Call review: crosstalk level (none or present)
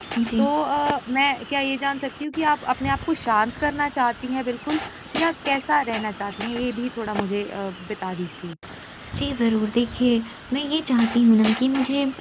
none